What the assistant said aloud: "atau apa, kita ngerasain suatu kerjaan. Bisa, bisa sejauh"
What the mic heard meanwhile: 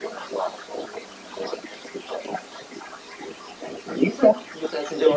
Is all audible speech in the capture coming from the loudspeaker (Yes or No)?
Yes